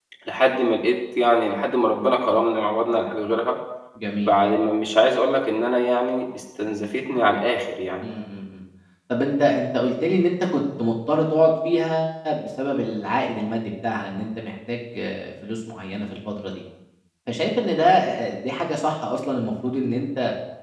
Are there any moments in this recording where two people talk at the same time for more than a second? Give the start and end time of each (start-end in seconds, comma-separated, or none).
none